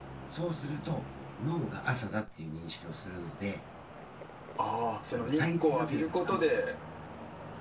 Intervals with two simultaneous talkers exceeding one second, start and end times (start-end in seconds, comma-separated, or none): 5.1-6.5